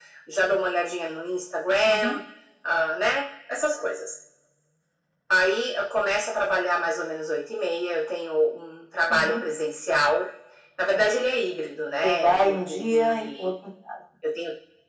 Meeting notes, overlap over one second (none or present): present